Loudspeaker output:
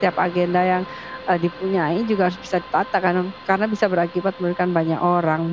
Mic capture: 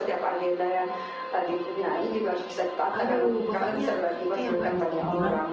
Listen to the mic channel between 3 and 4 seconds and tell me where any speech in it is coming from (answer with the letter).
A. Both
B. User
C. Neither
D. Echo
A